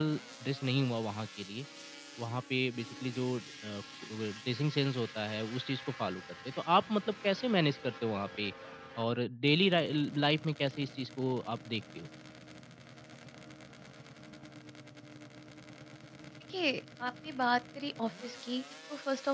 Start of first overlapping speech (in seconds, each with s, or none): none